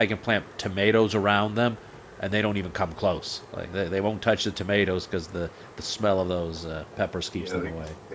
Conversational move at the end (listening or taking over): taking over